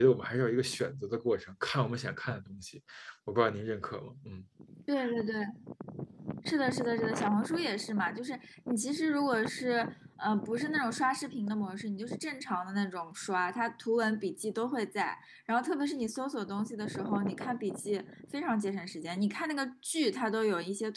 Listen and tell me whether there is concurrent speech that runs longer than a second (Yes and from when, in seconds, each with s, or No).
No